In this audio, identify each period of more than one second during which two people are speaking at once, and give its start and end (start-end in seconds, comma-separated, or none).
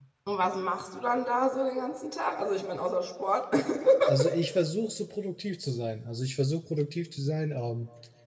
none